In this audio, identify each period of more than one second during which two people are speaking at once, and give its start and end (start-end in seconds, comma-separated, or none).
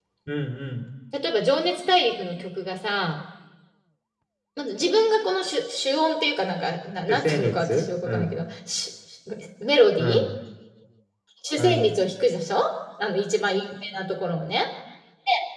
7.1-8.4